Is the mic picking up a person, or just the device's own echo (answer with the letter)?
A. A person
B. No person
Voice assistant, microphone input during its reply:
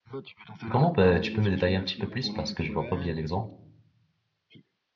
A